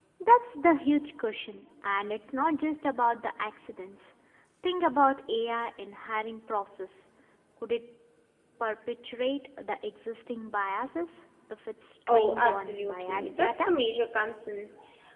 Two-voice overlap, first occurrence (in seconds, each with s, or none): 12.1 s